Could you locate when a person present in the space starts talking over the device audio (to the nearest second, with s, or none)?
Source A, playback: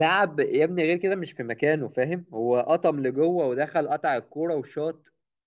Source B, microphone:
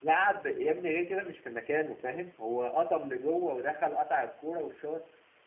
none